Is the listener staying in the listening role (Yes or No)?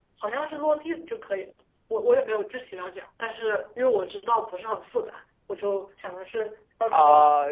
No